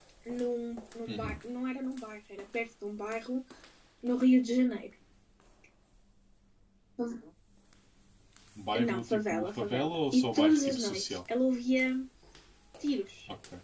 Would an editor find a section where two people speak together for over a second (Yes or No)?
Yes